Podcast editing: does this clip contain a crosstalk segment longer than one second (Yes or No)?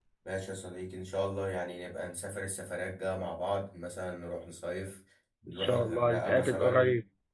Yes